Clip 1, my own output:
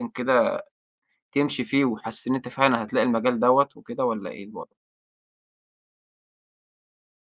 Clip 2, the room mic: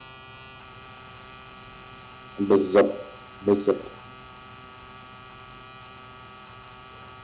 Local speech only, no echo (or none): بالضبط، بالضبط.